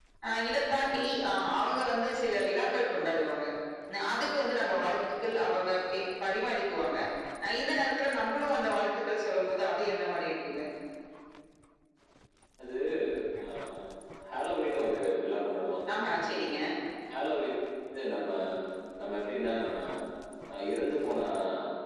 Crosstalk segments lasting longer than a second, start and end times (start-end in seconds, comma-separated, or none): none